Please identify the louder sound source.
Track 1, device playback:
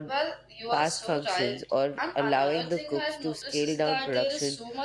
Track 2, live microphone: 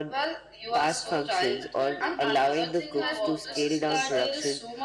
echo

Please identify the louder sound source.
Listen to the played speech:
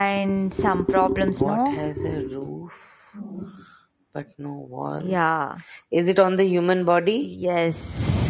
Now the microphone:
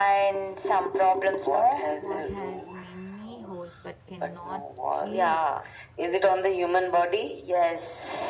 echo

